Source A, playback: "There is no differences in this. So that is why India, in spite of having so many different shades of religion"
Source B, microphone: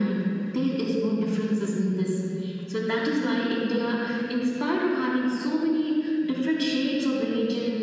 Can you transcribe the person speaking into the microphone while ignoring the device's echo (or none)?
none